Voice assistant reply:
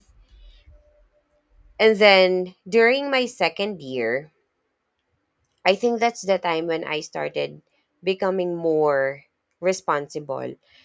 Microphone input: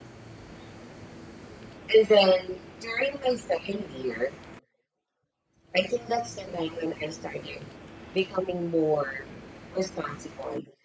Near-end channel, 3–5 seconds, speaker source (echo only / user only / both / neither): echo only